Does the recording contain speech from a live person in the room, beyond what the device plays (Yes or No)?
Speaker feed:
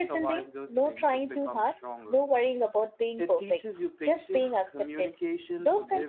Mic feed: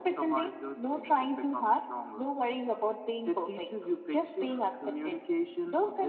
No